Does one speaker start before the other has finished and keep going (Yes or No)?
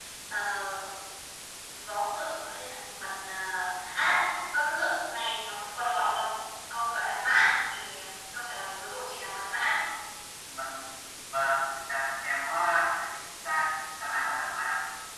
No